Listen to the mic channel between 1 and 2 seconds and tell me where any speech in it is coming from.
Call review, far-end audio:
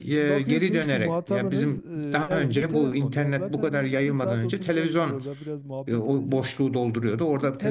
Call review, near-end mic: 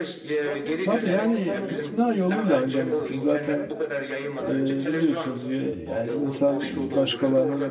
both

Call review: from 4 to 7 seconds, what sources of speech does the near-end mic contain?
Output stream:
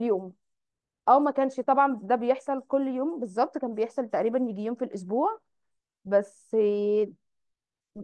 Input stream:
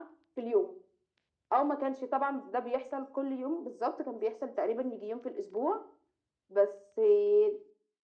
echo only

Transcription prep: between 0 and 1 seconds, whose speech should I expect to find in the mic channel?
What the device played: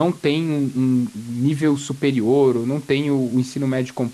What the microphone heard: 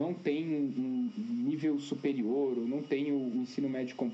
echo only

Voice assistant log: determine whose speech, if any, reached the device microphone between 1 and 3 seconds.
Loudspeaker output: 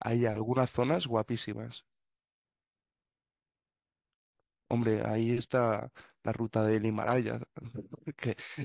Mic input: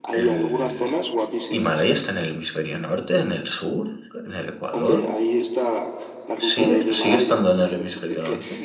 both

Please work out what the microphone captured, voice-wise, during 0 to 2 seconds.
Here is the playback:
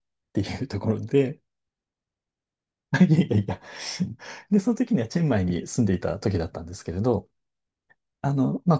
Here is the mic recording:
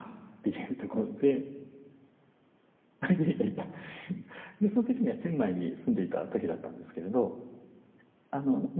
echo only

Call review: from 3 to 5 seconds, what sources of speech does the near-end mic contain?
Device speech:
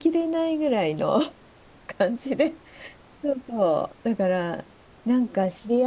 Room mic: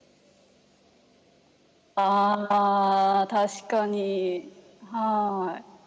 user only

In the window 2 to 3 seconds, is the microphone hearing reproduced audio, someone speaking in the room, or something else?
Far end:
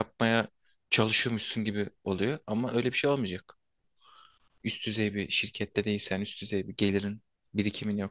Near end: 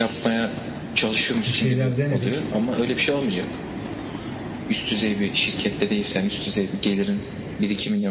both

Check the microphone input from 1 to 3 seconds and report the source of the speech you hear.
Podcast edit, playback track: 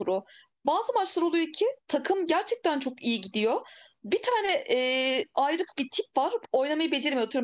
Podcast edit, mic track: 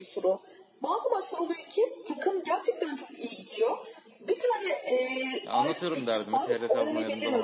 echo only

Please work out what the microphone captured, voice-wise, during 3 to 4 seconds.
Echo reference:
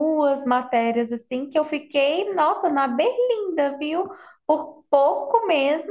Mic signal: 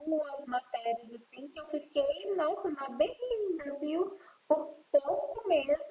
echo only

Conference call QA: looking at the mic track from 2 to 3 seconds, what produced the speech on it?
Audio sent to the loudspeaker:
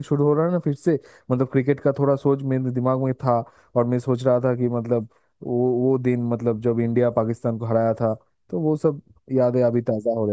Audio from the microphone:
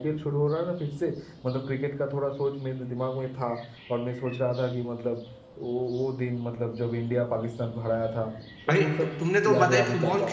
echo only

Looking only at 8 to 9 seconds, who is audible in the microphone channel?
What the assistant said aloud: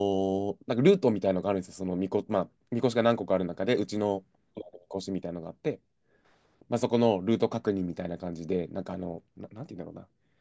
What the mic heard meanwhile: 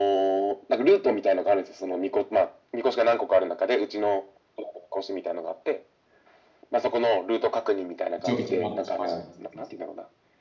both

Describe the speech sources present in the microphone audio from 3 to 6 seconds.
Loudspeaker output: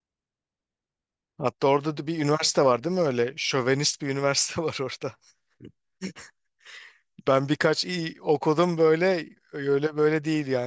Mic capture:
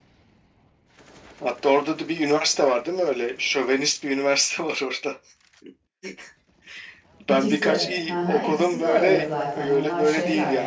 echo only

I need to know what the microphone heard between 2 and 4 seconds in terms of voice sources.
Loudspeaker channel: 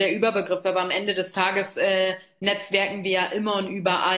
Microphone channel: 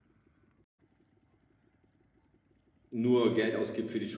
user only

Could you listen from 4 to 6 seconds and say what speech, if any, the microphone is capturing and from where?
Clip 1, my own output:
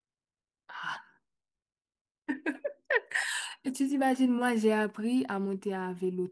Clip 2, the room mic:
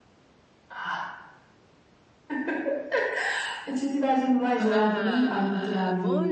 both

